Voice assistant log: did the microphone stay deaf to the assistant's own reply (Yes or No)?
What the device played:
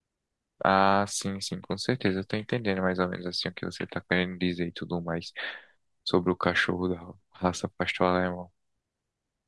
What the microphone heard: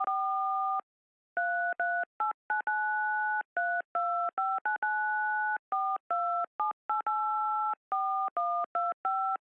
Yes